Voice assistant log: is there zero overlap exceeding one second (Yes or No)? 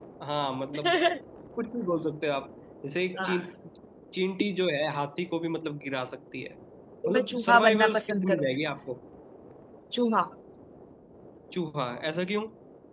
No